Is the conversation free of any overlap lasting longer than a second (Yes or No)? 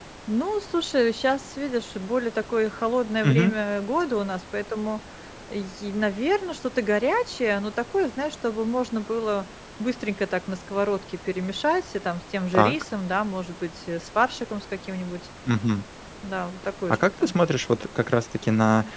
Yes